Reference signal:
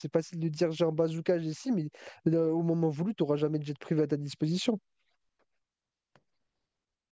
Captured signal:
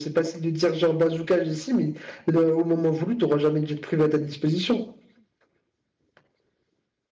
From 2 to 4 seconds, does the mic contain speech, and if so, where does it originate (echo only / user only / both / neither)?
echo only